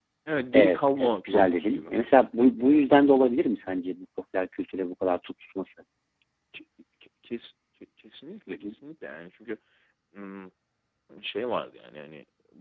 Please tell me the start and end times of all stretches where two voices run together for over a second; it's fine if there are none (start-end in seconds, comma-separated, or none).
0.5-1.9